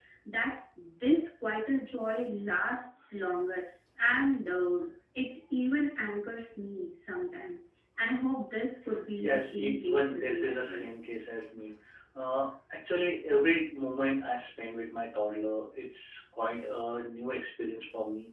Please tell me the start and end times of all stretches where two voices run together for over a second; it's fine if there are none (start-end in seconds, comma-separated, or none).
9.2-10.9